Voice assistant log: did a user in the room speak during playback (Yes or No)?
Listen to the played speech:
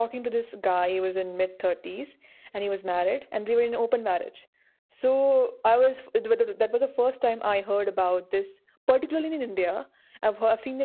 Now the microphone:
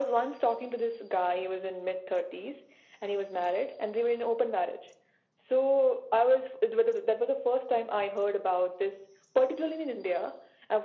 No